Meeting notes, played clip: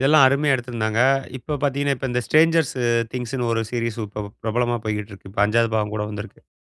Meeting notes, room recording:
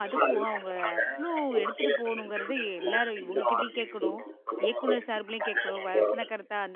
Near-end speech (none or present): present